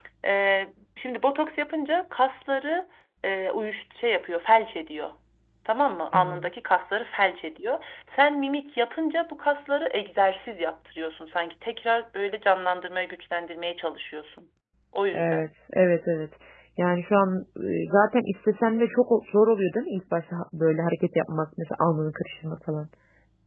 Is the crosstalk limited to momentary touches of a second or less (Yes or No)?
Yes